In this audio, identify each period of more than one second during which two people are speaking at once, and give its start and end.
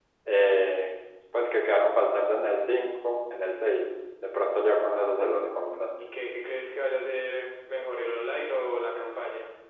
none

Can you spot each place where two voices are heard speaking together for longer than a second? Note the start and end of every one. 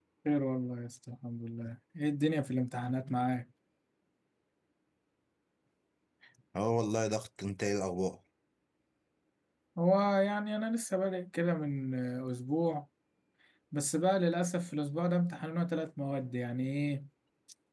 none

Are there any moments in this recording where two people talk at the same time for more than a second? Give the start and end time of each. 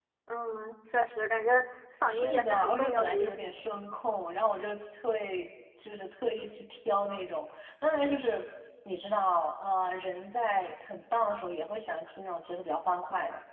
2.1-3.7

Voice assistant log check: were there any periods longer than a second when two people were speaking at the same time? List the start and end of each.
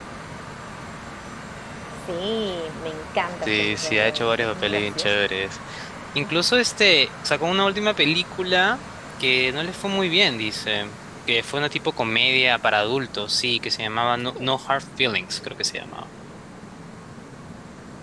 3.4-5.1

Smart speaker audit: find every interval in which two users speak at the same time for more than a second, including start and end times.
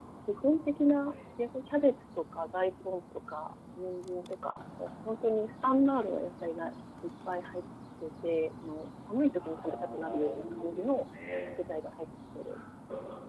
9.4-10.8

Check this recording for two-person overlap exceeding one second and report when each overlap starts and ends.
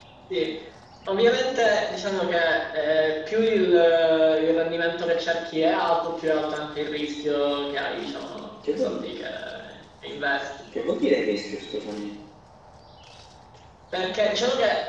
none

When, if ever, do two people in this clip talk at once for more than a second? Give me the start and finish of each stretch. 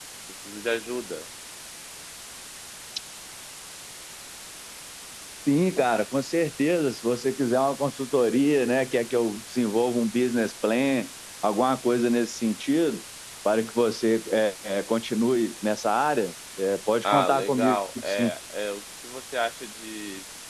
17.0-18.3

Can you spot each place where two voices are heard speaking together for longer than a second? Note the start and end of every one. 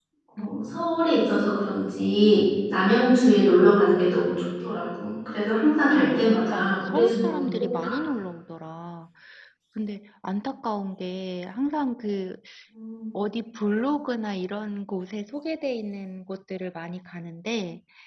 6.1-8.0

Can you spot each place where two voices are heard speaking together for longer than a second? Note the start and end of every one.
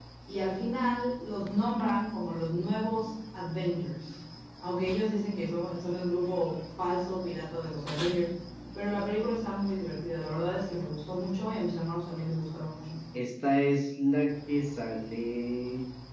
none

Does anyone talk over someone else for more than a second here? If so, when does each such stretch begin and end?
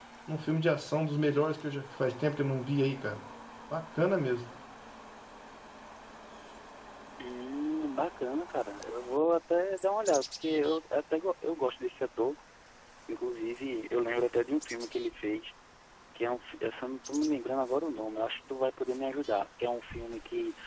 none

